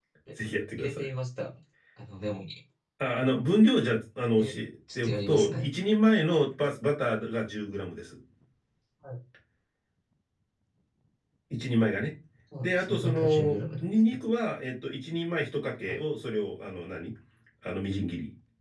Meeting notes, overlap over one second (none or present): present